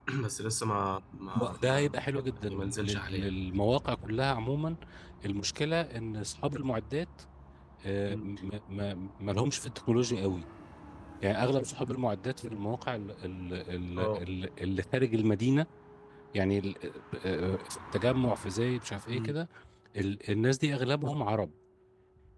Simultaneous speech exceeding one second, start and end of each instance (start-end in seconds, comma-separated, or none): 1.4-3.3